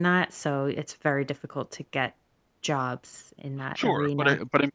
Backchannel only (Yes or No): No